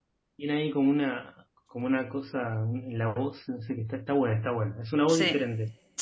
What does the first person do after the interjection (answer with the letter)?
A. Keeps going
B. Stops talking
B